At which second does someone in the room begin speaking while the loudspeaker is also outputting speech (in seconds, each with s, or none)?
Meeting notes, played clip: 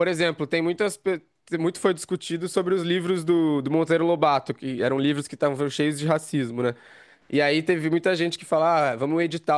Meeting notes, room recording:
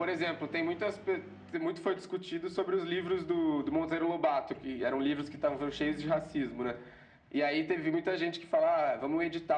none